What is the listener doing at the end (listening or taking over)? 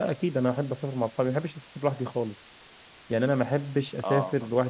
listening